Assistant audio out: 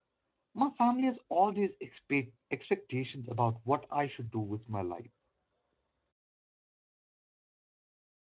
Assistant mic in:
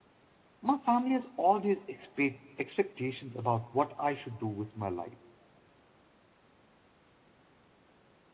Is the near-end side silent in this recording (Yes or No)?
Yes